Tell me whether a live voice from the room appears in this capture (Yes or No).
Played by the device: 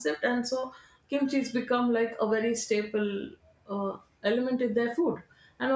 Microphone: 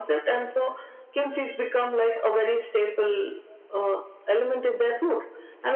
No